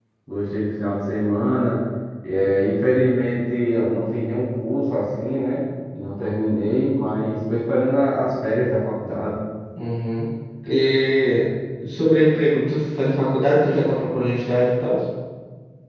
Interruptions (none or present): none